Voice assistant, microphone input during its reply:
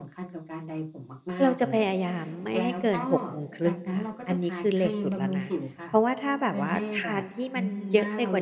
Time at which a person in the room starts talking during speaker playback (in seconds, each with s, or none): 1.4 s